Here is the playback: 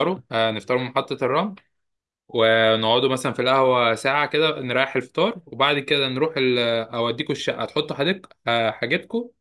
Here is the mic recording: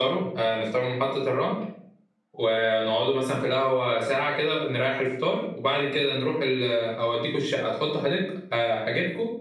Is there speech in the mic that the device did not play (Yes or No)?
No